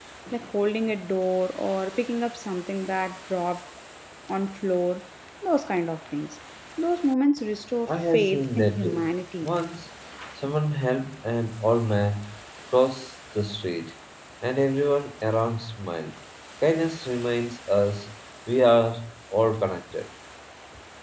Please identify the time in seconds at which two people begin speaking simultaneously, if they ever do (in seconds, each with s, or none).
7.9 s